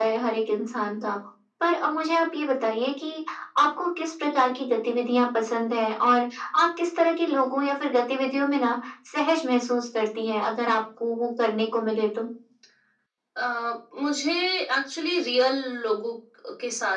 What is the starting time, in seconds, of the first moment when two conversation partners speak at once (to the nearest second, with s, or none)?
none